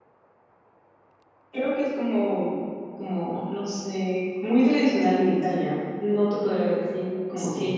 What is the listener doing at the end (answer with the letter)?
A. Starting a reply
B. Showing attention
A